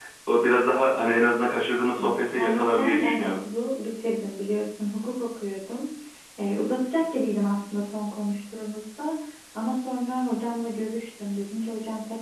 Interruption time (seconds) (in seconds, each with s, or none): 2.0 s